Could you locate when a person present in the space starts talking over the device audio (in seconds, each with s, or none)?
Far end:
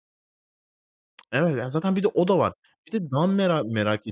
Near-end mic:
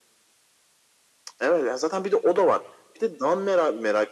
none